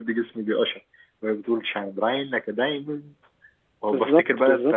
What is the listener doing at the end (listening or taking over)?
listening